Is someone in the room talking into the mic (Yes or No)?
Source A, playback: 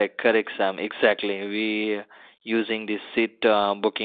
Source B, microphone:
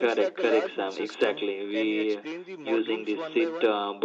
Yes